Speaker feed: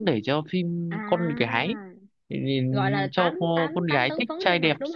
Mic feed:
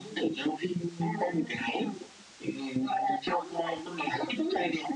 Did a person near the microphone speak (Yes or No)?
No